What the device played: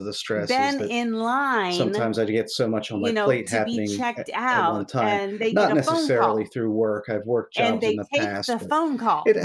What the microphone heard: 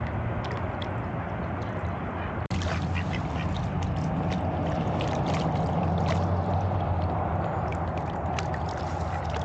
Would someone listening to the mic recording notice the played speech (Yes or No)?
No